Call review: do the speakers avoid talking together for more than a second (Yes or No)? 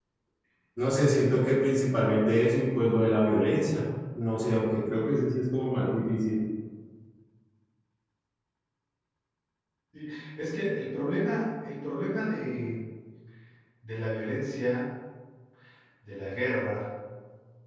Yes